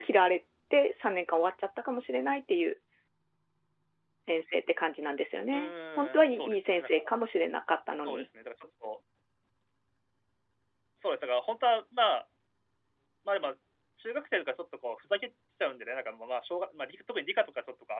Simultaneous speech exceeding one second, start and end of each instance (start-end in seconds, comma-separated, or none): 5.5-7.1